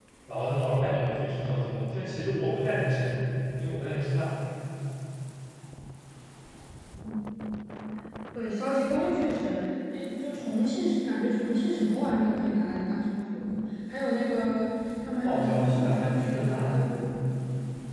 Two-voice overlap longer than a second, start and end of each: 15.2-16.8

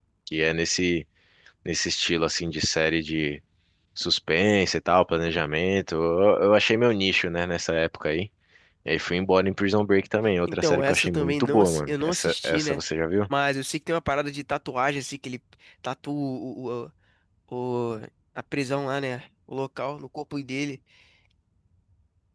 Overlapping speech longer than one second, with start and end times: 10.5-12.8

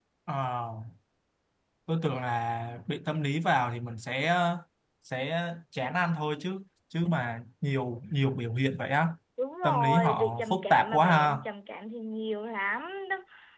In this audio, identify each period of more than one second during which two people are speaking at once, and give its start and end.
9.6-11.4

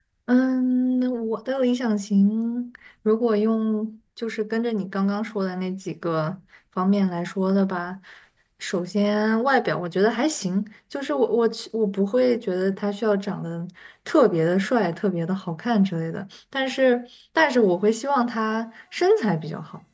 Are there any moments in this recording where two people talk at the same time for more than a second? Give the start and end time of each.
none

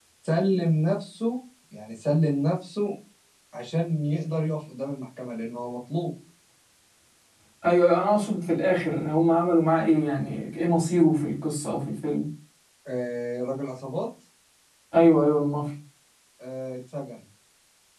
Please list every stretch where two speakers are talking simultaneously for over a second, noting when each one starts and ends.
none

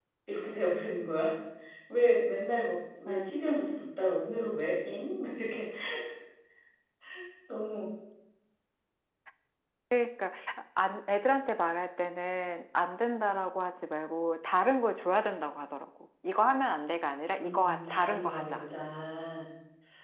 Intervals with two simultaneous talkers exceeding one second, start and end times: 17.4-18.7

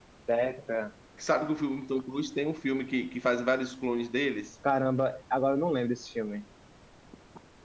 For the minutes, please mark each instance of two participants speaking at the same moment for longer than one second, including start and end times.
none

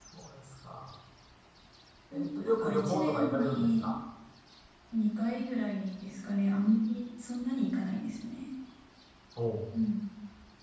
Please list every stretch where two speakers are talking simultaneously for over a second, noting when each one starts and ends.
2.4-3.9

